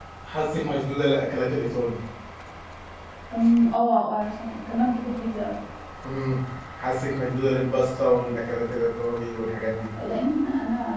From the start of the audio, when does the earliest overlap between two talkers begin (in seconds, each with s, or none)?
none